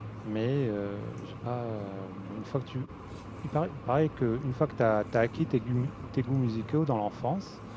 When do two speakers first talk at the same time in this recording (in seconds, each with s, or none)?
none